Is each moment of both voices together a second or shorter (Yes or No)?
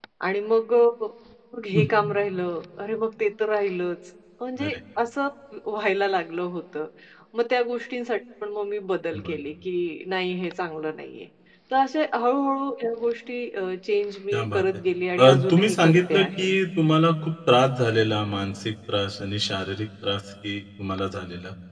No